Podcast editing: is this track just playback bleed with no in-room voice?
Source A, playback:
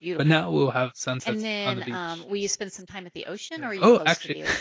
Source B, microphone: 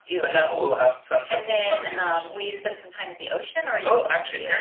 Yes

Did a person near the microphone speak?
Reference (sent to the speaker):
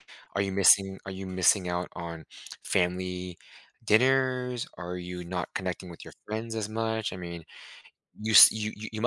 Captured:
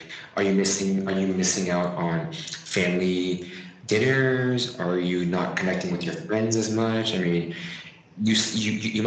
No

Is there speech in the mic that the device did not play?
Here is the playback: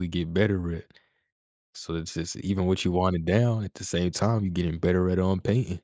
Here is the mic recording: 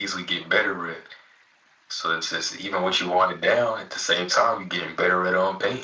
No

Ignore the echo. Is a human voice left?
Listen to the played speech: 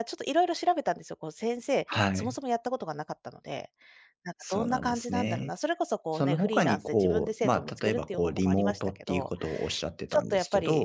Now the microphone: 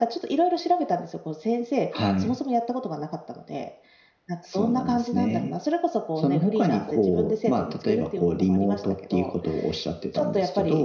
No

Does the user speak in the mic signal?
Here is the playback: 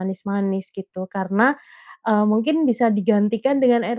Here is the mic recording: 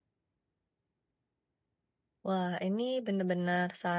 Yes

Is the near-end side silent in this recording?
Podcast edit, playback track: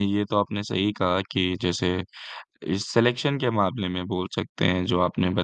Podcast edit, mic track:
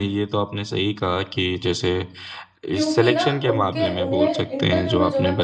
No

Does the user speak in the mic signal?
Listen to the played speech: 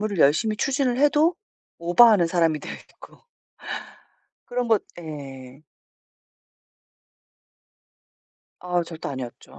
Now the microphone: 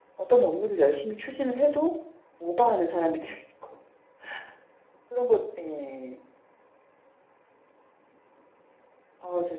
No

